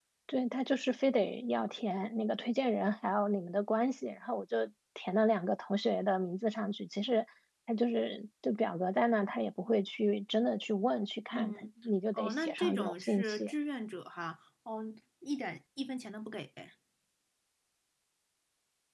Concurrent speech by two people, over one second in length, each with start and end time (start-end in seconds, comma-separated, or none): 12.1-13.5